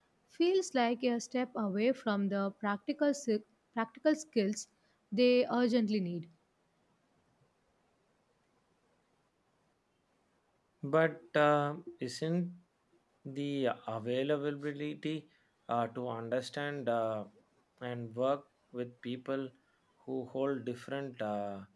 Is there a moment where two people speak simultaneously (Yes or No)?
No